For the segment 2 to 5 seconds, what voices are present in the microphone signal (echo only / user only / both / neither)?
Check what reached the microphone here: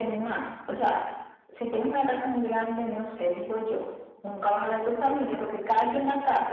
echo only